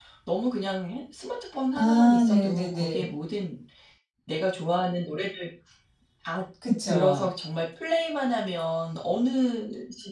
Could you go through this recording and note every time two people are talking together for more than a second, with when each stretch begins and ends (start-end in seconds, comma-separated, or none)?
1.8-3.1